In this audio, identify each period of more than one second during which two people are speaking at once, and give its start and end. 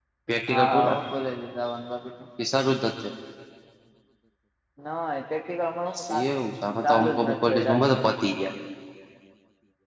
6.8-8.1

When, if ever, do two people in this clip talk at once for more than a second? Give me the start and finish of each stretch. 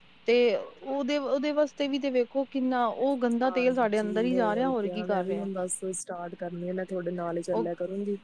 3.4-5.4

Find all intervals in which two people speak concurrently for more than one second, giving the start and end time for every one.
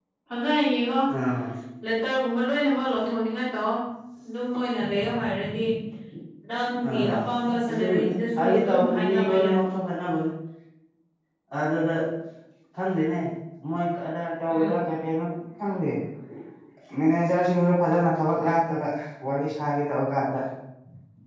7.7-9.6

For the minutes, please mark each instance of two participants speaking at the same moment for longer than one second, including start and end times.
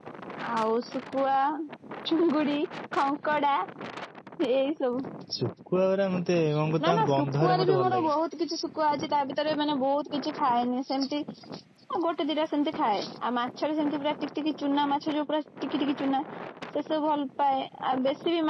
6.8-8.1

